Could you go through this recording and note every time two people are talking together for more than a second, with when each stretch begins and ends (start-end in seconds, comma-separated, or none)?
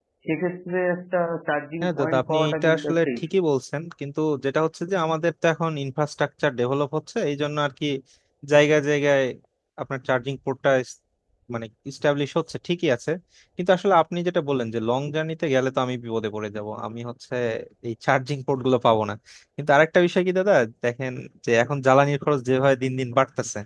1.8-3.1